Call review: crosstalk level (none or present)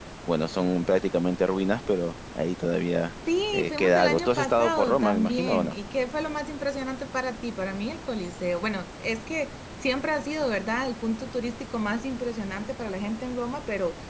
present